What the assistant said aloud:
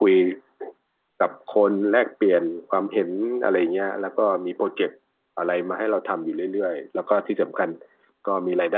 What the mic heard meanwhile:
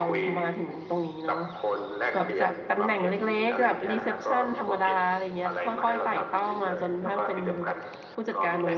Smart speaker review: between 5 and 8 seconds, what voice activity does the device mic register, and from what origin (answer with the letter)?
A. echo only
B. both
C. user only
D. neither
B